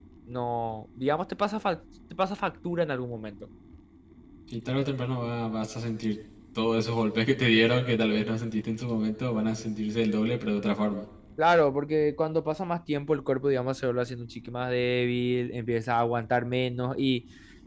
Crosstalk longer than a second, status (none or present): none